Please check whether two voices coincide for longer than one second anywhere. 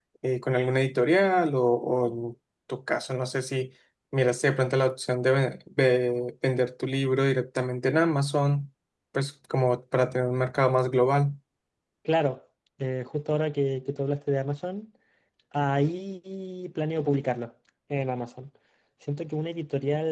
No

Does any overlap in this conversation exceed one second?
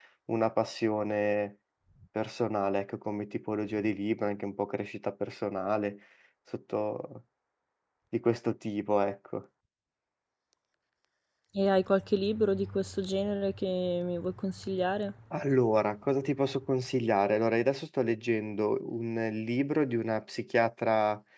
No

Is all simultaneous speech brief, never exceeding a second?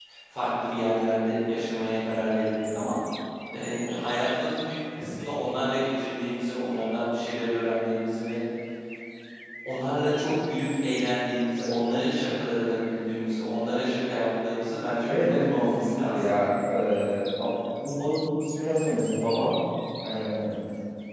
No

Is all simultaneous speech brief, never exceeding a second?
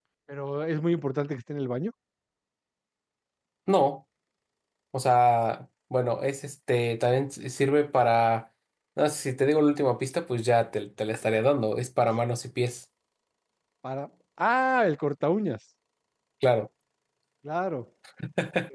Yes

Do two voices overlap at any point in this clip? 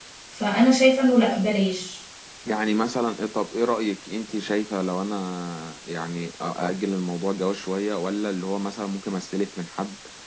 No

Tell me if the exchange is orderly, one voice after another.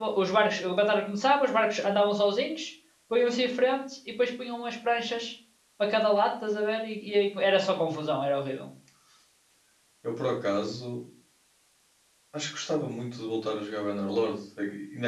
Yes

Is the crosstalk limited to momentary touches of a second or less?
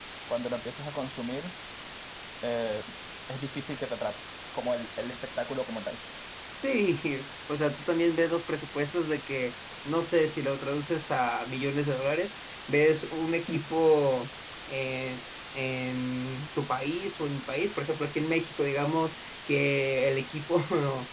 Yes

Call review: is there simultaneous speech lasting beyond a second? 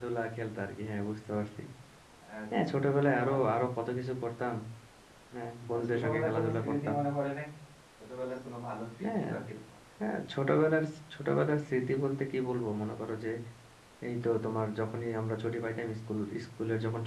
Yes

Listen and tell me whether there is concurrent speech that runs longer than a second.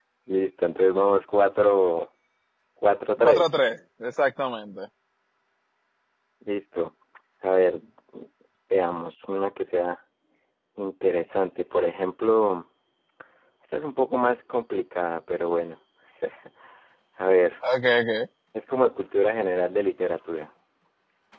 No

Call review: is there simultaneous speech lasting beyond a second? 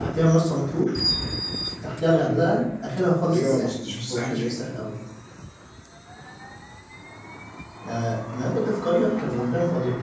Yes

